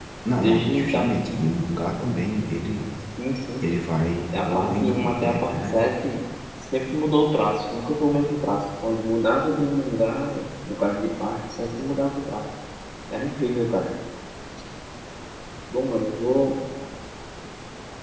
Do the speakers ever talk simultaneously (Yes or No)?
Yes